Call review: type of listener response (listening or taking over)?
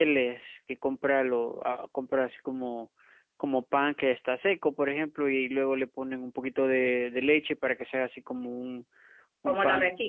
taking over